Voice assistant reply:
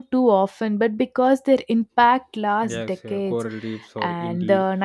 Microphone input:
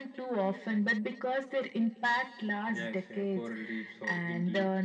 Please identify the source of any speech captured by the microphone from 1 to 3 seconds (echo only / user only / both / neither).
echo only